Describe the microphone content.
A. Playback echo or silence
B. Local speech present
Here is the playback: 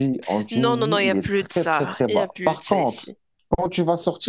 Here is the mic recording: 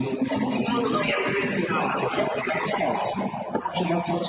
A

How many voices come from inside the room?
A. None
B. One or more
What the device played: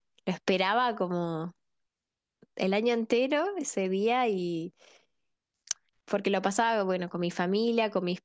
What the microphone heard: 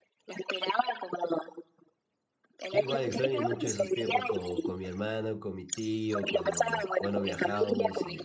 B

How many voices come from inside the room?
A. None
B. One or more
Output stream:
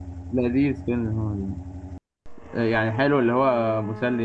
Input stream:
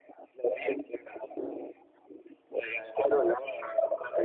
A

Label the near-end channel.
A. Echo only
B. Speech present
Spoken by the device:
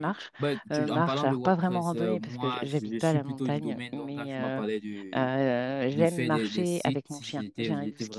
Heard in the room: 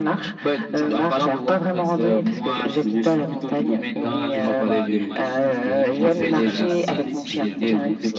B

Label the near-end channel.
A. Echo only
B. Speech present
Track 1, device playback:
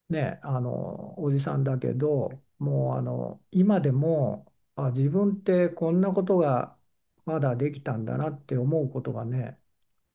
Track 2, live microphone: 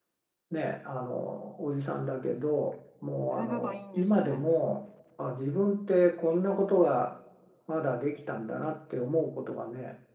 B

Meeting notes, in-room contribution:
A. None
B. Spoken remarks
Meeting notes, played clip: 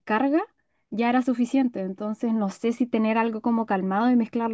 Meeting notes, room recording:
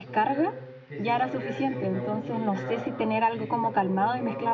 B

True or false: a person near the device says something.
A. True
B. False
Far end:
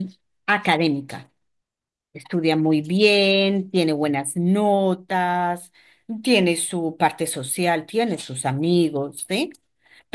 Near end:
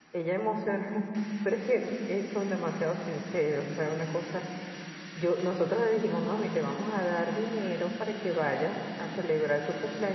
A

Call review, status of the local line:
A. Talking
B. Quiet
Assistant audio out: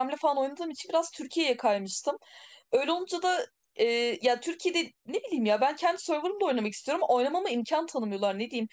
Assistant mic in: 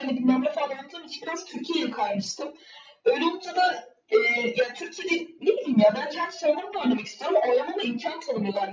B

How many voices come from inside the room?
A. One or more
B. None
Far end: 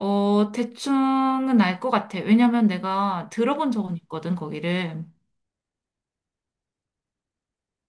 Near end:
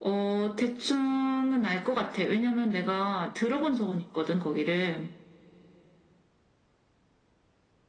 B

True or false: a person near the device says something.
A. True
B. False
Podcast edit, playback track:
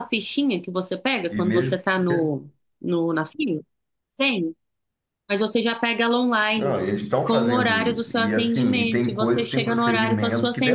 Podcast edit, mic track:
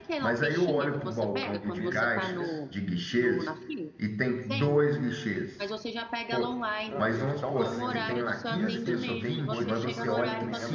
A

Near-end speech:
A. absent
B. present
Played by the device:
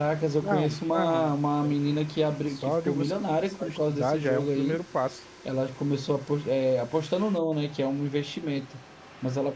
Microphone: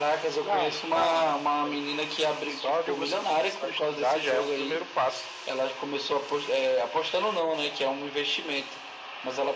A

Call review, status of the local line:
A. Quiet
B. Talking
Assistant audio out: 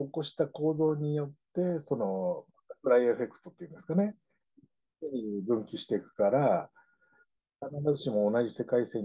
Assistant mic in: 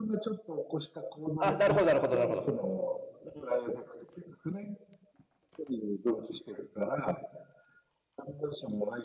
B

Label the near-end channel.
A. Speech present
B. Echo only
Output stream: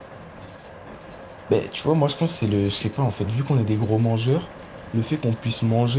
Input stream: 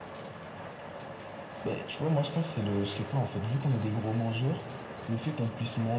B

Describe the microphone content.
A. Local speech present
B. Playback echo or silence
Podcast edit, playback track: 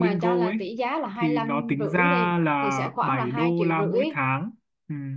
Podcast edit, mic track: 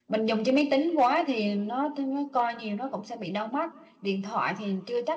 A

